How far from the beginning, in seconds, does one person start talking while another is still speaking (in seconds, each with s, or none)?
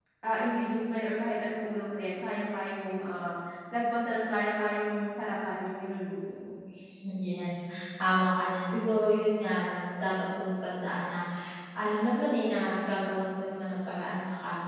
none